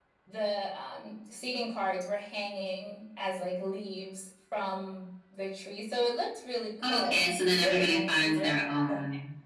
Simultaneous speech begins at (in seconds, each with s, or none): 6.8 s